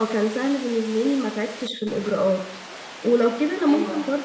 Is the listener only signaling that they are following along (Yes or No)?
Yes